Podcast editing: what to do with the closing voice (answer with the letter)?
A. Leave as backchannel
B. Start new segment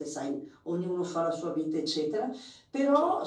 A